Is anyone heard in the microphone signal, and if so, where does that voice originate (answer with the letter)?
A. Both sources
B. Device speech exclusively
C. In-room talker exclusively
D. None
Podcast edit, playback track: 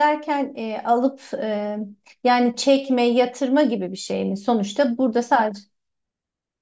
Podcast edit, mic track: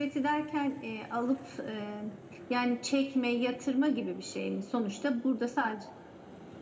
B